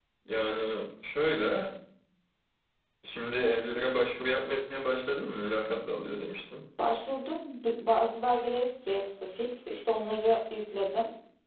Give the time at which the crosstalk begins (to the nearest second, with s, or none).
none